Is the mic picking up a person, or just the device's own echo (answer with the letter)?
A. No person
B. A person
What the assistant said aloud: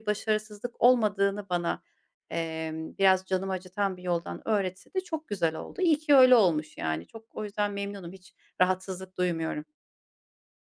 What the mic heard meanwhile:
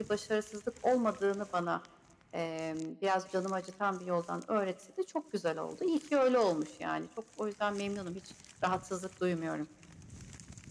A